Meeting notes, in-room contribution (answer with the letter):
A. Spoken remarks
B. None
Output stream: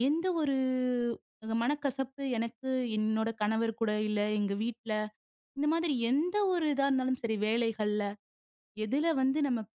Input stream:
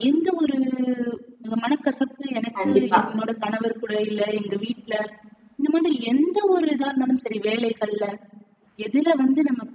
A